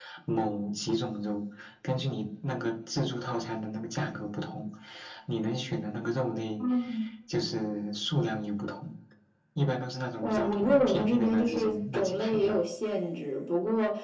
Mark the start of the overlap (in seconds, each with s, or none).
10.2 s